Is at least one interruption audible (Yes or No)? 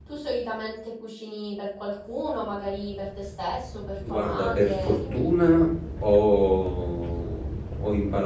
Yes